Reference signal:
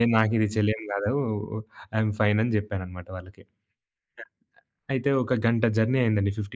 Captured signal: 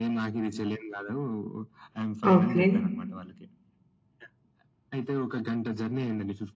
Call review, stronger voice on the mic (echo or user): user